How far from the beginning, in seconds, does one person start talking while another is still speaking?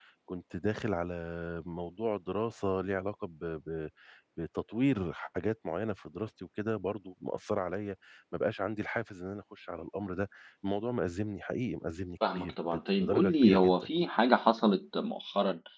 12 s

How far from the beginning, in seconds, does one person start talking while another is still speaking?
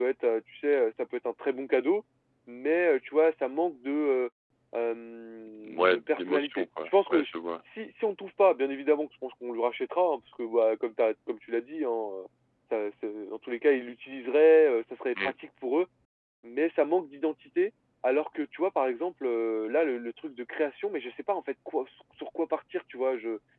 6 s

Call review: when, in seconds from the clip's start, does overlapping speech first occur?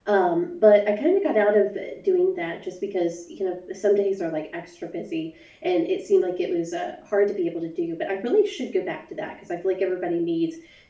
none

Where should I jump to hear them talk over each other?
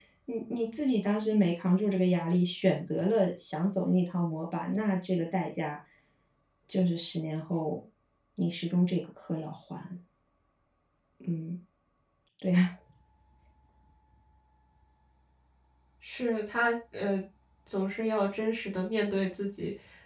none

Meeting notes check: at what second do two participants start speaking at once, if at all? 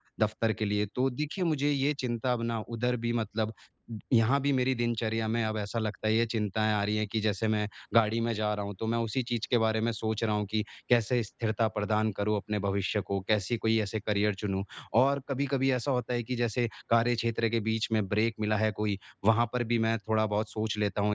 none

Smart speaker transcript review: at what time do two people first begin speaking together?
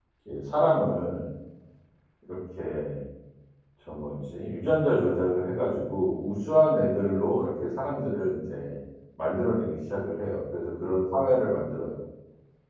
none

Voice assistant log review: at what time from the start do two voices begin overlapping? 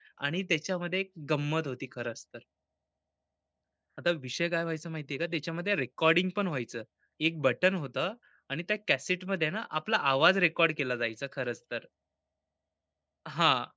none

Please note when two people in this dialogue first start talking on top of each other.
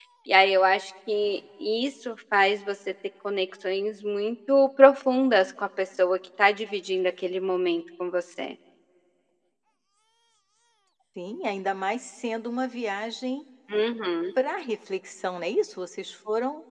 none

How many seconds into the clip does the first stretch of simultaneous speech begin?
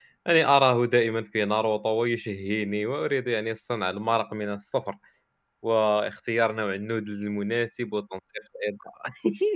none

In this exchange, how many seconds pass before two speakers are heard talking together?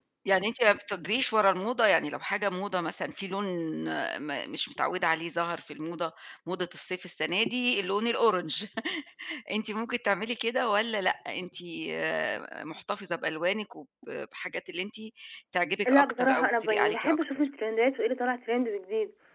16 s

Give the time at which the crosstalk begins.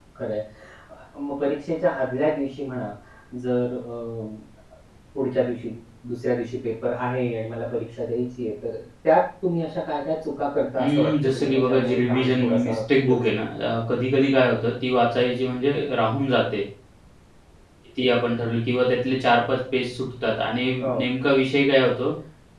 11 s

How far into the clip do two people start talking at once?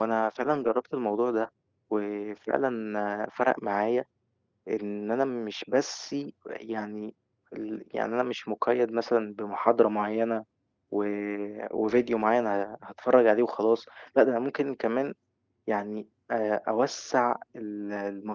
none

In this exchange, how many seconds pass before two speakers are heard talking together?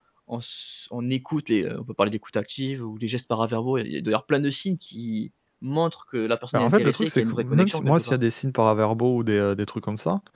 7 s

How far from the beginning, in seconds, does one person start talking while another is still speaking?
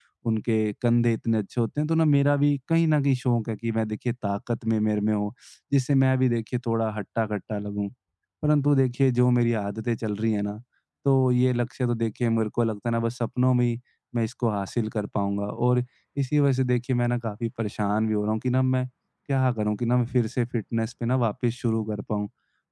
none

